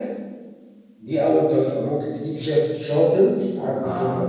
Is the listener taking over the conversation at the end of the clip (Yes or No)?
No